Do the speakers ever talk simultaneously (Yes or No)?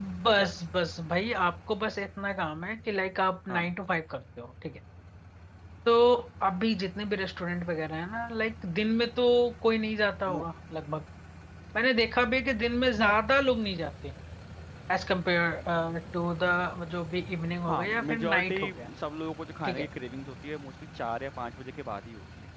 Yes